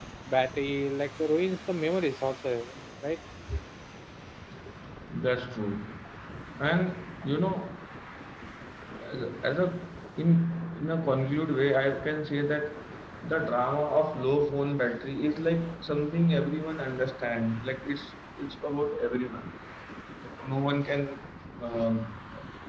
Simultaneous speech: No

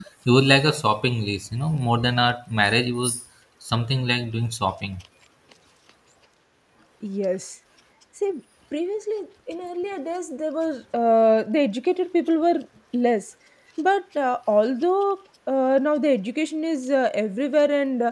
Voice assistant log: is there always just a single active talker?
Yes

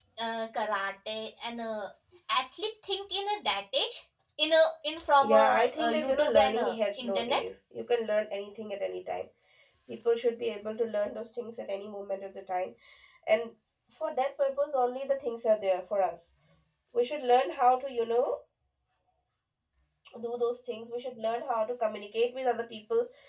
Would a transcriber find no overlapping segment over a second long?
No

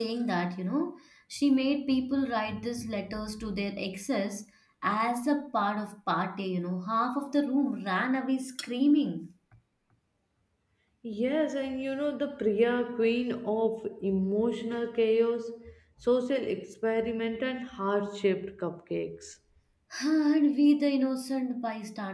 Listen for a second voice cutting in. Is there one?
No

